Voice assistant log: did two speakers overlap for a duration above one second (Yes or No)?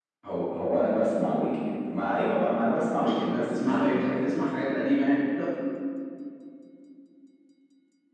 Yes